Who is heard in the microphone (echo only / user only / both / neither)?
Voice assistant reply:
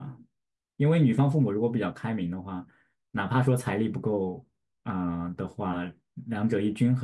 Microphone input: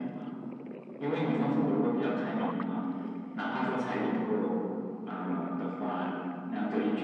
echo only